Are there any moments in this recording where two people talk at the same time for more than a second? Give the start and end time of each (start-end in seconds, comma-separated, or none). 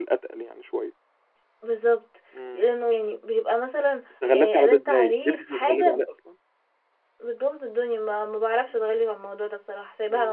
4.3-6.0